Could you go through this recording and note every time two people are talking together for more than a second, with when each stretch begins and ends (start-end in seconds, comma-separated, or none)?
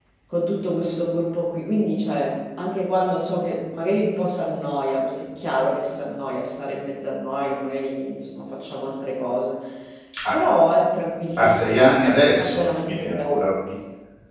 11.4-13.3